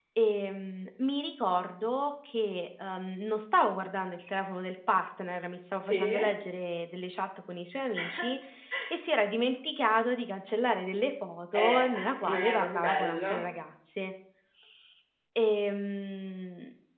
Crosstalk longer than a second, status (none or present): present